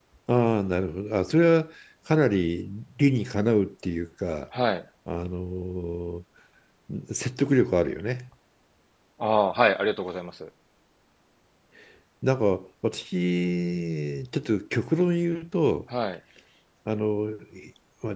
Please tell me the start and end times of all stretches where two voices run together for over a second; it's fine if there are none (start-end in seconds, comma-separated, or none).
none